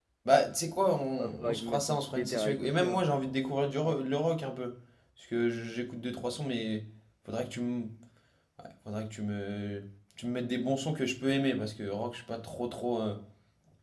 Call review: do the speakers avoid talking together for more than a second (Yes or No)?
No